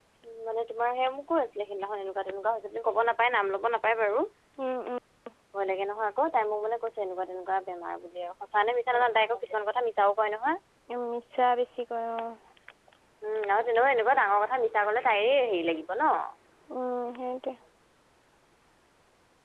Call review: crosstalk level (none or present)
none